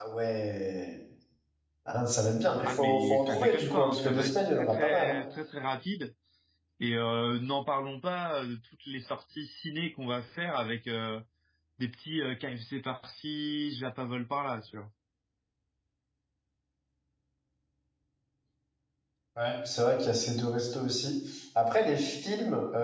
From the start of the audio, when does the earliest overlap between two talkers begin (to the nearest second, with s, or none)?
3 s